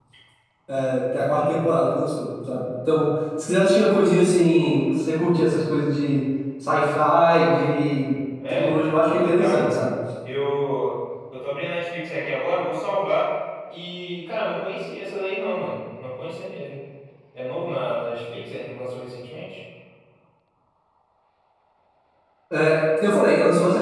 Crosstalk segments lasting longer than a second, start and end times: 8.5-9.9

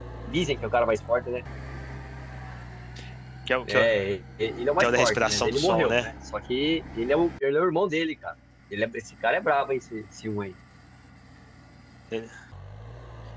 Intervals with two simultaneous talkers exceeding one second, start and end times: 4.8-6.1

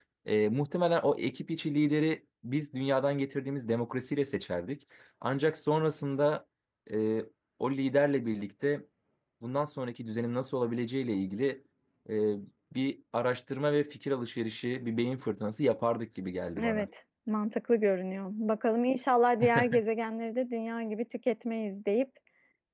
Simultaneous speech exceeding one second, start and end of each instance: none

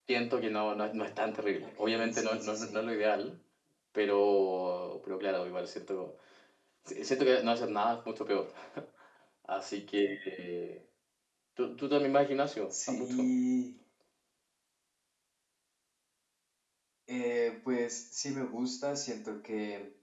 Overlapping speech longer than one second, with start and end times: 1.7-2.9

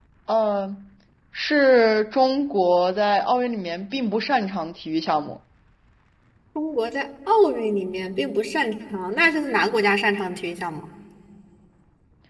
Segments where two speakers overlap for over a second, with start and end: none

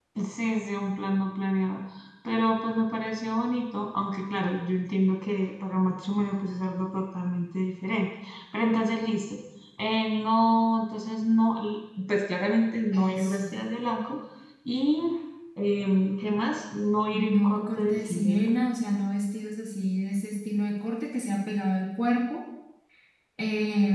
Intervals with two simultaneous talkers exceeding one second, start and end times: 17.1-18.5

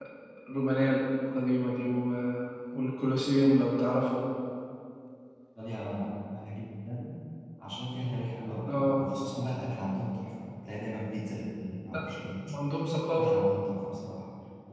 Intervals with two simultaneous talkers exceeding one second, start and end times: none

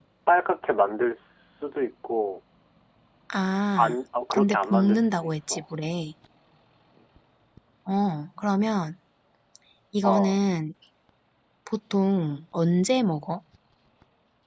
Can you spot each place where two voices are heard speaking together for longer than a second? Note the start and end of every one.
4.3-5.6

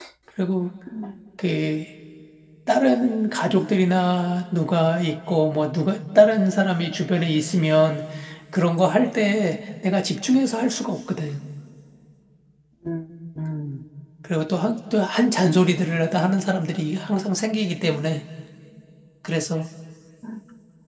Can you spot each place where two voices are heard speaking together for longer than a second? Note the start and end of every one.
none

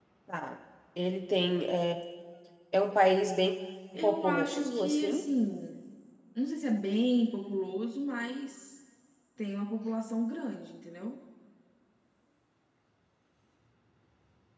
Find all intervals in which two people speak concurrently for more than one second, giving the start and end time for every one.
4.0-5.3

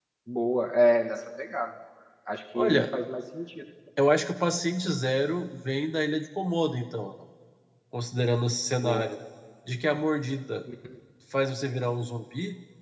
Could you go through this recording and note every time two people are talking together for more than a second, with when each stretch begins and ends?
none

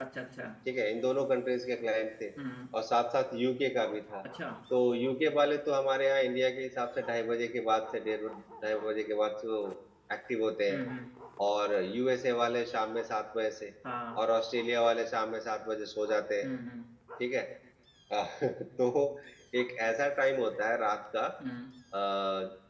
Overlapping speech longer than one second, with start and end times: none

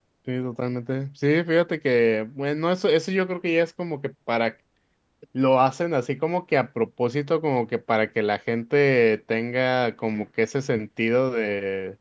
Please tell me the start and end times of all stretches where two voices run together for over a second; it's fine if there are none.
none

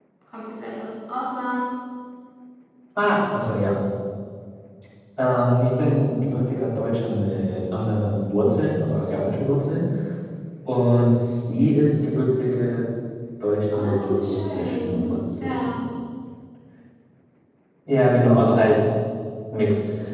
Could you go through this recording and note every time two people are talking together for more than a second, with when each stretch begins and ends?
13.7-15.7

